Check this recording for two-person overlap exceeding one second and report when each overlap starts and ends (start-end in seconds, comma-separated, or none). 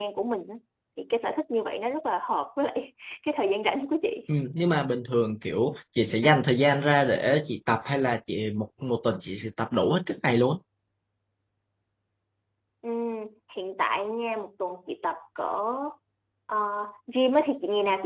none